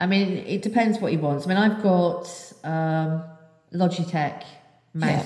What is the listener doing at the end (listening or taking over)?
listening